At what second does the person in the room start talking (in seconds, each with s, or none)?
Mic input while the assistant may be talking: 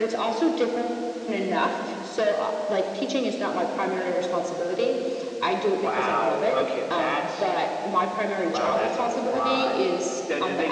none